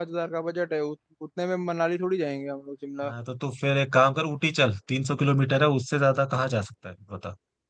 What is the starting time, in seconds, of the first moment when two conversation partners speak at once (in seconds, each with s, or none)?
none